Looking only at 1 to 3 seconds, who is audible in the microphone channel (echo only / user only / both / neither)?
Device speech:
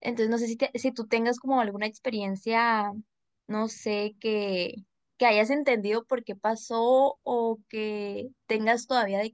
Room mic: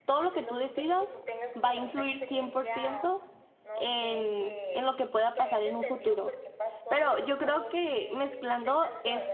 both